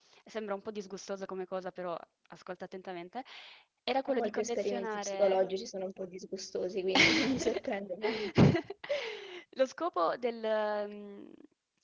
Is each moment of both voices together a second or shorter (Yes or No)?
No